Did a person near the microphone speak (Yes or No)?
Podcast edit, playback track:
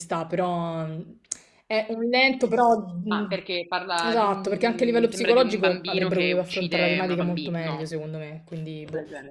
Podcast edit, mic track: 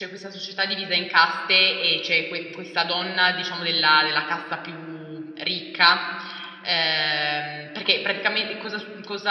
Yes